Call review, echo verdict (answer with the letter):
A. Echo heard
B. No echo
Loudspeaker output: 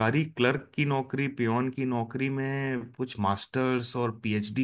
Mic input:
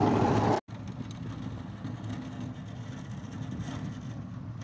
B